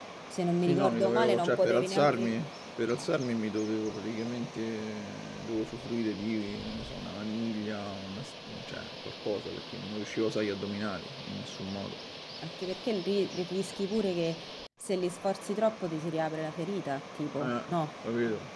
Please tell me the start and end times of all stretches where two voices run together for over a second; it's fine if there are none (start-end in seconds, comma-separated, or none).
0.6-2.3